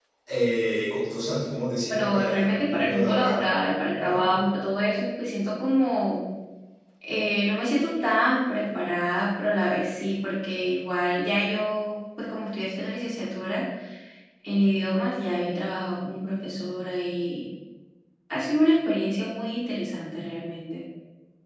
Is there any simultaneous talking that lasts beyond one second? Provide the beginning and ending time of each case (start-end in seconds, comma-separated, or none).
1.9-3.4